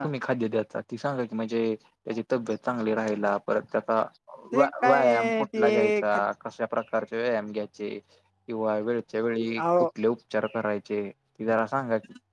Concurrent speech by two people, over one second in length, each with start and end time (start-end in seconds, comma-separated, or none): 4.6-6.2